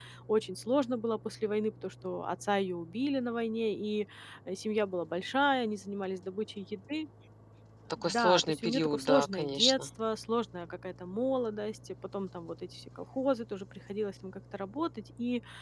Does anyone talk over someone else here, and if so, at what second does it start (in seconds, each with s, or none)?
8.0 s